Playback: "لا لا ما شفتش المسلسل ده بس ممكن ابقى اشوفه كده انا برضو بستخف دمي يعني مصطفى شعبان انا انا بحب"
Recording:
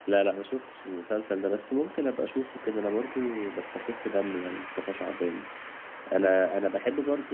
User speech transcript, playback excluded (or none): none